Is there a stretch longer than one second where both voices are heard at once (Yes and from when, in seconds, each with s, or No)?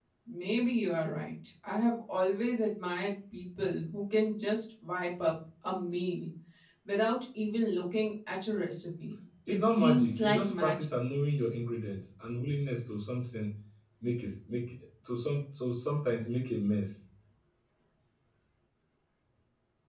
Yes, from 9.5 s